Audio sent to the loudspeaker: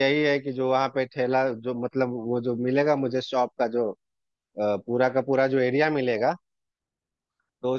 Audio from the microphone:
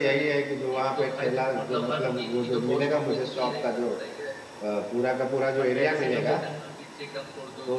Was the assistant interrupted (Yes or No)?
Yes